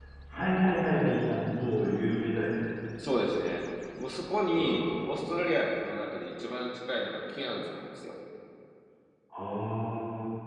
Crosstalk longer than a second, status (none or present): none